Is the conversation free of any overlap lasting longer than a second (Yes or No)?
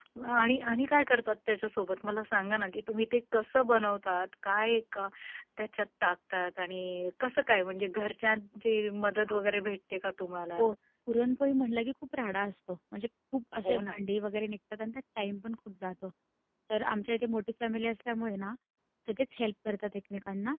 Yes